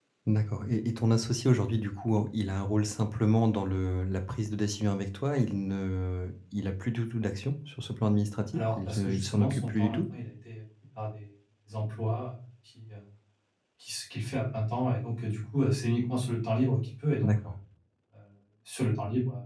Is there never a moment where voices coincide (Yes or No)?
No